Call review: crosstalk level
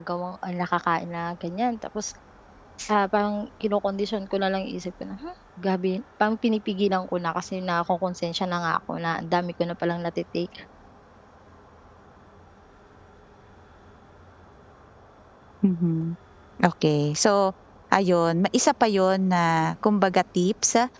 none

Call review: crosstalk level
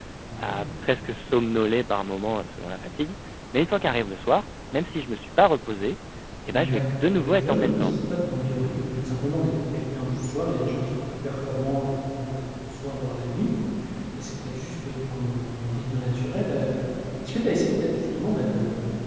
present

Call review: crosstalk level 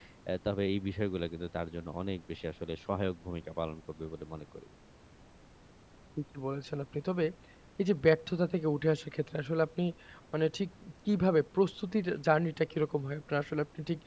none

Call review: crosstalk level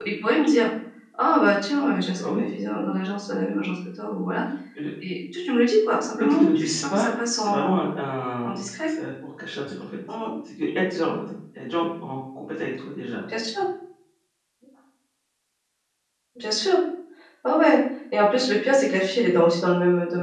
present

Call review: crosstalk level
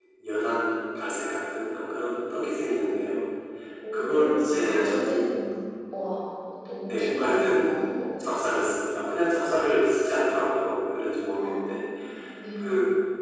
present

